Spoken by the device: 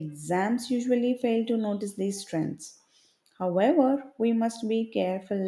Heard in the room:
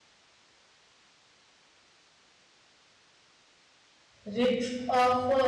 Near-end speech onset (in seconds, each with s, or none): 4.2 s